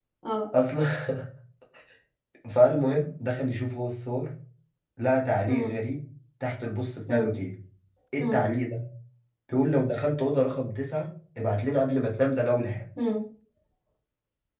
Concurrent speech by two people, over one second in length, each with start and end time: none

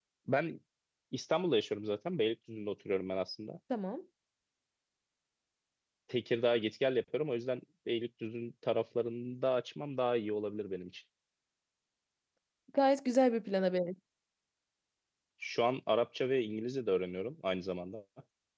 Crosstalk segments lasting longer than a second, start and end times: none

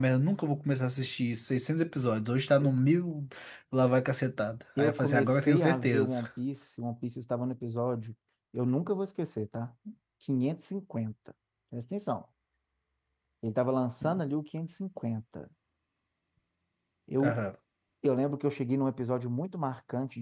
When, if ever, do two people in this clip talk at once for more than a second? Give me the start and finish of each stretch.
4.8-6.2

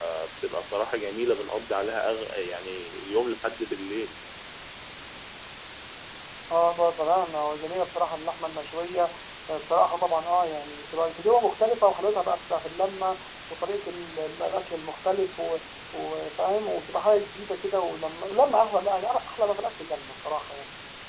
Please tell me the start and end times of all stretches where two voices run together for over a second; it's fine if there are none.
none

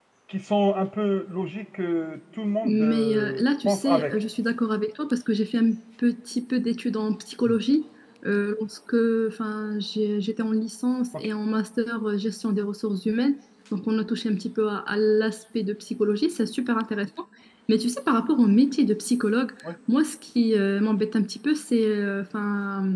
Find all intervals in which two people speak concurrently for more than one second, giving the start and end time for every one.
2.6-4.2

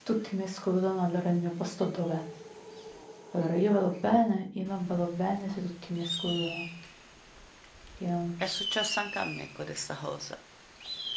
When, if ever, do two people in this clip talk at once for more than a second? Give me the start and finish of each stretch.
none

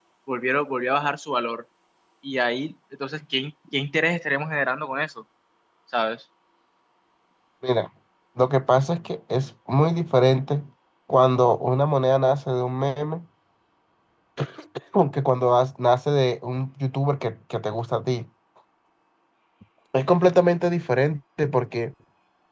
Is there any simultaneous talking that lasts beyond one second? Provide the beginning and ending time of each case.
none

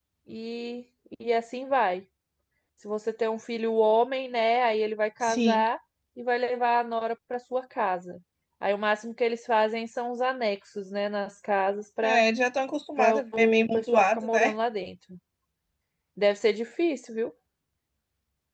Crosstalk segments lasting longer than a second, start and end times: 13.0-14.5

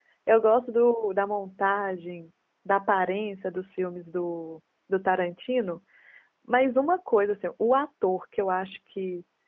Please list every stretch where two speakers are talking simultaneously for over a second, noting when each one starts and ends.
none

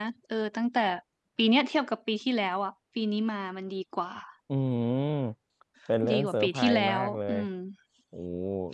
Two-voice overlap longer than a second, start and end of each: 6.1-7.4

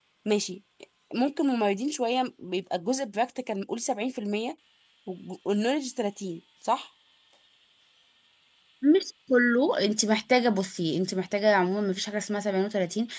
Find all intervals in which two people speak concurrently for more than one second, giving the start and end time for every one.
none

